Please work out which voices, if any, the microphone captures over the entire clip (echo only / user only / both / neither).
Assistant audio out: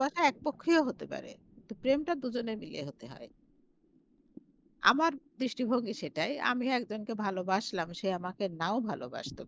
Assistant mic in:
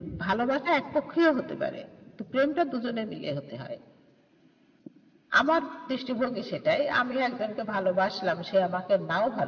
echo only